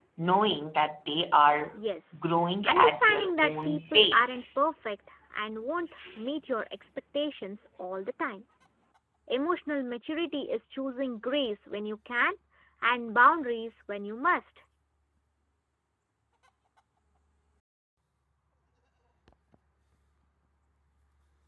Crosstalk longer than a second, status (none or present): present